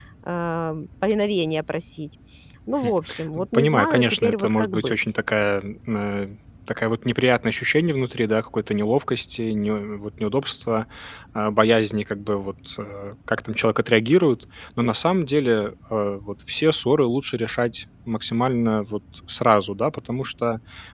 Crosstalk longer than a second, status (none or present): present